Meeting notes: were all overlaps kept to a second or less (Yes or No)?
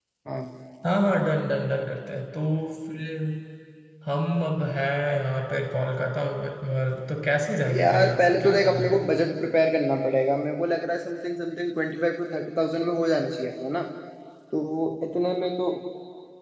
No